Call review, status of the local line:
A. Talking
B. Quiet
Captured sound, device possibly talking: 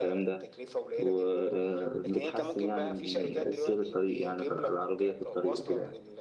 A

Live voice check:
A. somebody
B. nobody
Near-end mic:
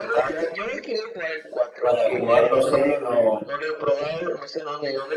B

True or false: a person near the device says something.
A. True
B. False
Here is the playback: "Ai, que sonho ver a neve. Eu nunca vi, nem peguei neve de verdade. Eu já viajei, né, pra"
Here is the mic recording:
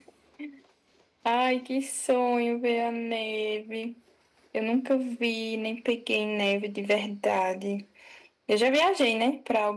B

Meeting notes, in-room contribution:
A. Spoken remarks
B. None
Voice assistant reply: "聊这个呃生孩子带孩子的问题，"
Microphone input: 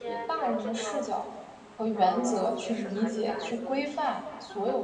A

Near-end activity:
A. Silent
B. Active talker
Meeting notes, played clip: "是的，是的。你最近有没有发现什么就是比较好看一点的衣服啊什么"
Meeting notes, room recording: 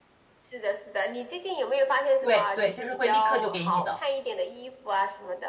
B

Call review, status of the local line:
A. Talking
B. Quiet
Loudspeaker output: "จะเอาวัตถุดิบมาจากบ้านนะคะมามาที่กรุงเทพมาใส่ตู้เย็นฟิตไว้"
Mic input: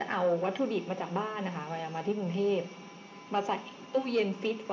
B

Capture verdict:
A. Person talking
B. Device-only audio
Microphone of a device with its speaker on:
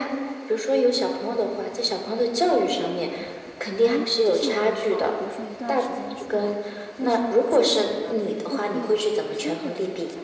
A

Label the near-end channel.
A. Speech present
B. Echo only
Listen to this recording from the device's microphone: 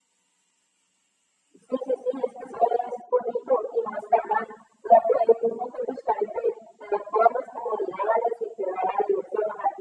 B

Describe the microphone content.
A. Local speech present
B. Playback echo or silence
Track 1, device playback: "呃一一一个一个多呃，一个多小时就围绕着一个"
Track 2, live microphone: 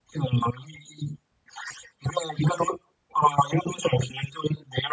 B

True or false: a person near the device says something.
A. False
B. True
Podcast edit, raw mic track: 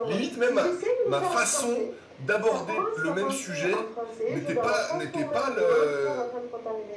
B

